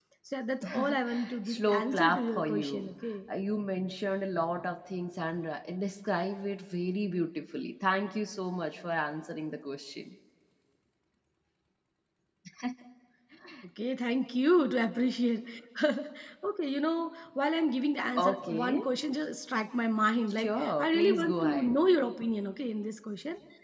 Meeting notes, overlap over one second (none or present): present